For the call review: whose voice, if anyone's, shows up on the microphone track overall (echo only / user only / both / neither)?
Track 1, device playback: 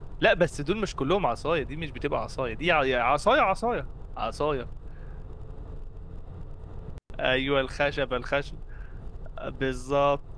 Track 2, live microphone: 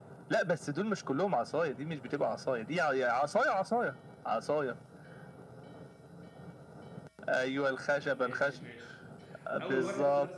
both